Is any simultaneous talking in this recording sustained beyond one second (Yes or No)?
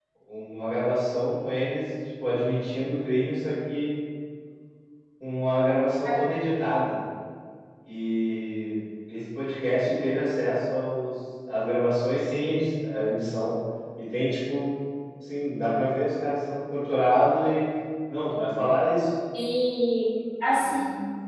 No